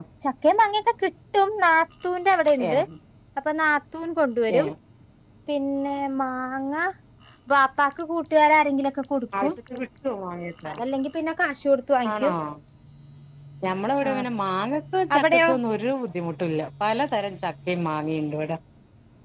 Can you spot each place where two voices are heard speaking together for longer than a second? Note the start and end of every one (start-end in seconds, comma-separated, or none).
none